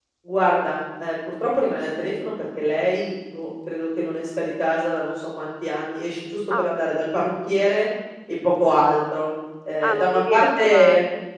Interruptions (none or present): present